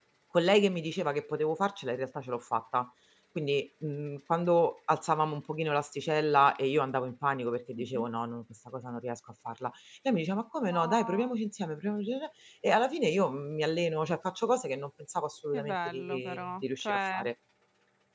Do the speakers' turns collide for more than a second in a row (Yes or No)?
Yes